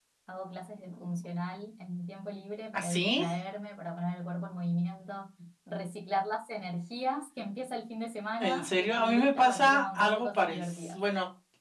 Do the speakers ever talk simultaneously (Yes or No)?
Yes